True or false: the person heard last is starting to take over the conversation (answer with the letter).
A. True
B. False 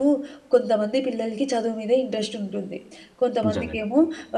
B